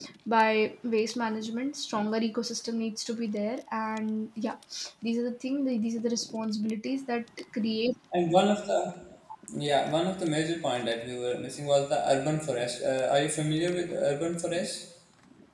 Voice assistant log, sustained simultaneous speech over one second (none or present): none